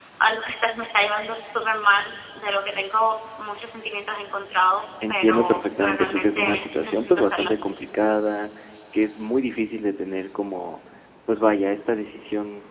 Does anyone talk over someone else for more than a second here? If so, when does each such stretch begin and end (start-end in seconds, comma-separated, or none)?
5.1-7.5